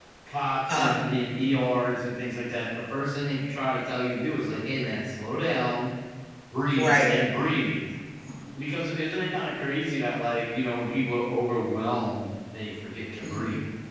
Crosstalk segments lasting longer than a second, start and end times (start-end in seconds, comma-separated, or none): none